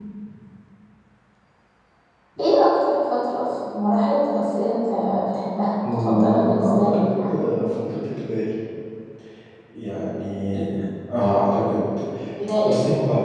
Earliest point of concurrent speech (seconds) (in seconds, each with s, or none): 5.8 s